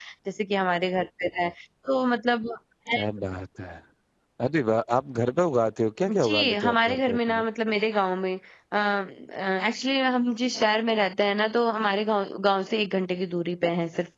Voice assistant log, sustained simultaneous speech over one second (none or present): present